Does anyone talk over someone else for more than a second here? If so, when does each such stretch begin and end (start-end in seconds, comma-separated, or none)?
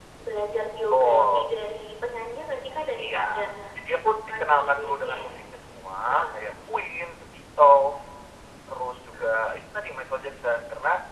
3.9-5.2